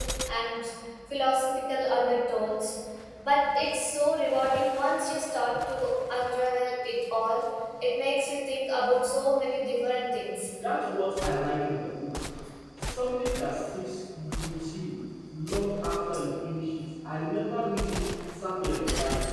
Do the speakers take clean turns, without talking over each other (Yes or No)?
Yes